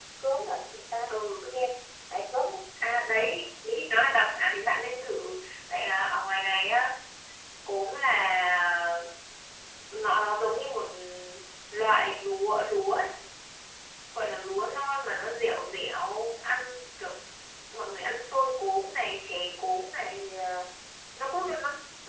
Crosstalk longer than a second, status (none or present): none